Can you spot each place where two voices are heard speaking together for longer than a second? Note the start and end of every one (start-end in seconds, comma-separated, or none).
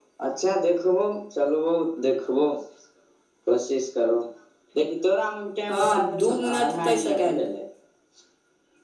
5.7-7.5